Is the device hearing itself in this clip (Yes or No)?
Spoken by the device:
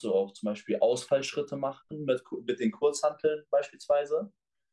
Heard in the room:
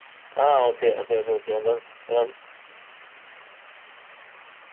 No